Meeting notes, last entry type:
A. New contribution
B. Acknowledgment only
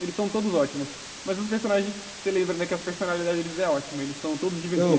A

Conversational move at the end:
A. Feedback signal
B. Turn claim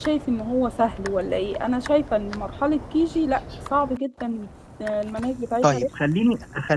B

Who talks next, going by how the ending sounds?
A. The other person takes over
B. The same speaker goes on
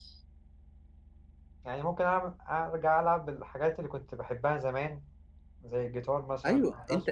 A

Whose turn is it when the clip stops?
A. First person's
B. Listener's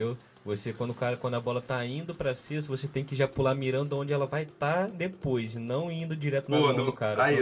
B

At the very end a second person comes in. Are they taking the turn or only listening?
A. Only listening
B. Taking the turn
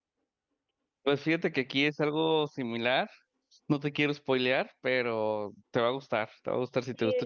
B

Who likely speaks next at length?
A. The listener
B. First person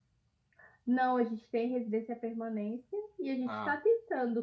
B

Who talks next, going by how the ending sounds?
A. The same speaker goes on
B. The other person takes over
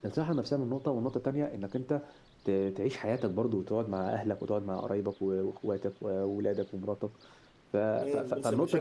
B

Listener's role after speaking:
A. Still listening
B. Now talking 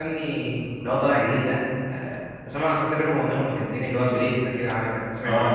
B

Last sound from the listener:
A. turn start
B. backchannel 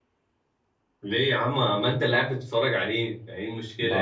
A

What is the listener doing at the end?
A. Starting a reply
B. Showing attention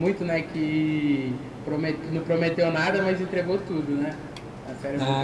A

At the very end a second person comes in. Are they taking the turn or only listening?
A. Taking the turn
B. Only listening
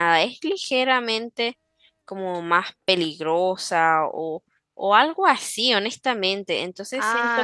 A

